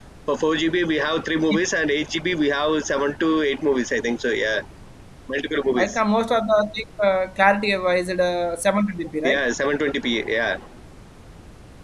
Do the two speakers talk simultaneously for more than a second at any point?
No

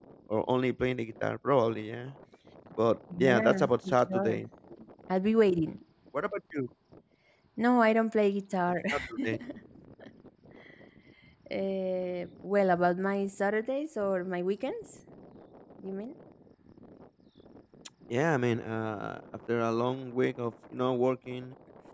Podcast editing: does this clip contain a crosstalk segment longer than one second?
Yes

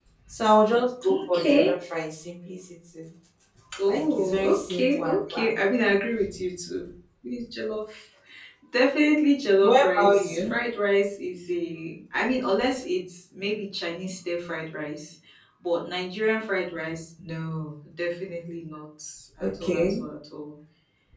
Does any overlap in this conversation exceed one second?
Yes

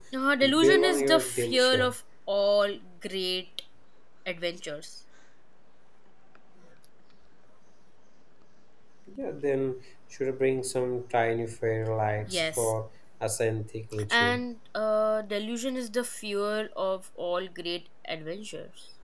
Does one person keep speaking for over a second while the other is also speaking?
Yes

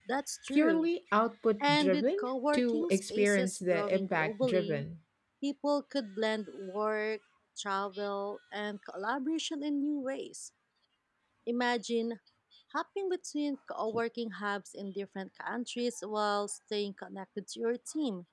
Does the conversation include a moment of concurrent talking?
Yes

